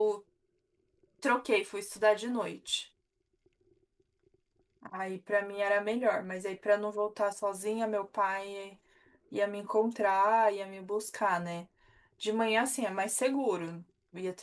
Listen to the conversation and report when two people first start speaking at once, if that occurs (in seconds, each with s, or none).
none